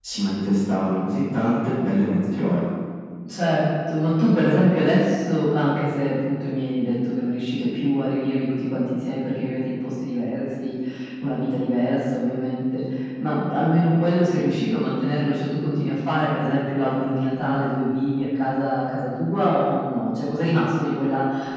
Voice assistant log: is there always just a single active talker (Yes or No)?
Yes